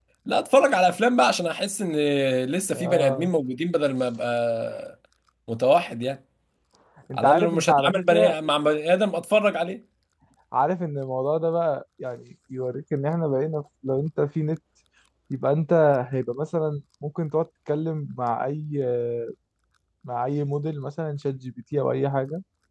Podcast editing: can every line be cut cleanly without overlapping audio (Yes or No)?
No